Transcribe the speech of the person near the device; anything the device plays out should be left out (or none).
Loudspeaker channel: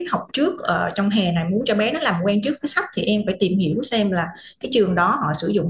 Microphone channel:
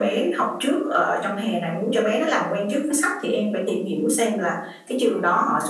none